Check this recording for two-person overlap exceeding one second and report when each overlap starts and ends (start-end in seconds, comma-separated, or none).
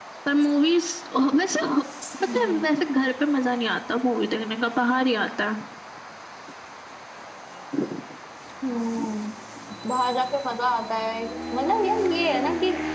none